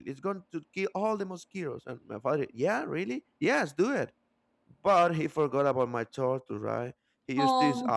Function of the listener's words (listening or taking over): listening